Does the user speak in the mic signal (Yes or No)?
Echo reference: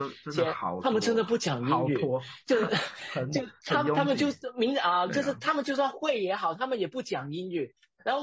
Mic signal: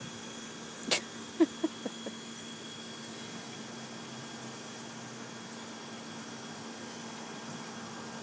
No